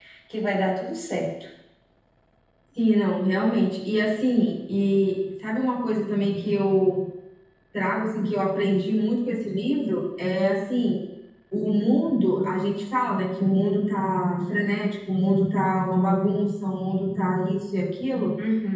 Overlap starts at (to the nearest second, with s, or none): none